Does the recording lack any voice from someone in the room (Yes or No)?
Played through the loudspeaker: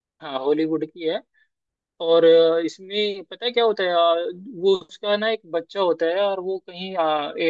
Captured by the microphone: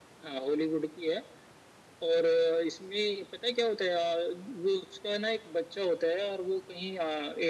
Yes